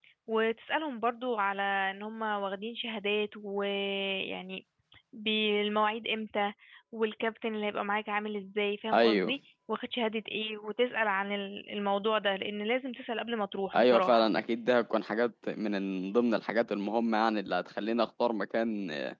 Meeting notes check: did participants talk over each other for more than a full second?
No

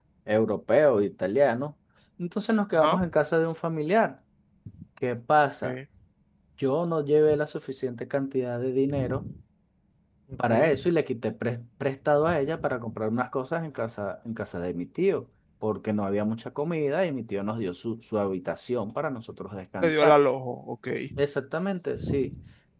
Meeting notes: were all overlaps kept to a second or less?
Yes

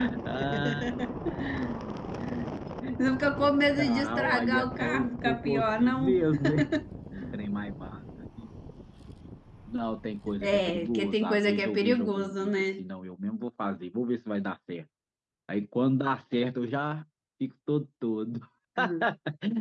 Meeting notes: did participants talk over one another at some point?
Yes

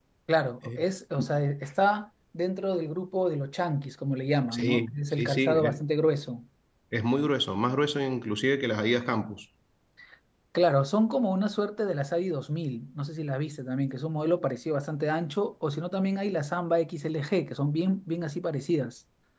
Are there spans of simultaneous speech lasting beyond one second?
Yes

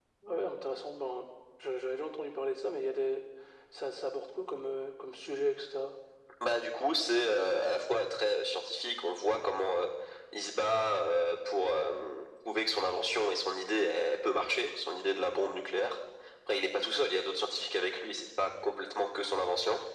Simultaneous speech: No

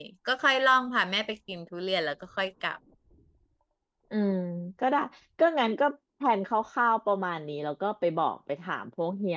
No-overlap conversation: Yes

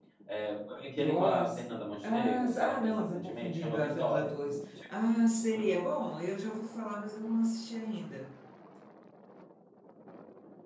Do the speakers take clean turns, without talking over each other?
No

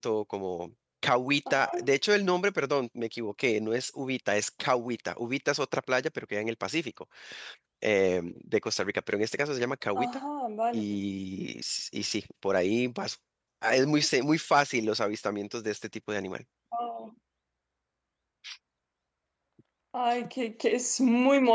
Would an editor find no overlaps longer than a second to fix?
Yes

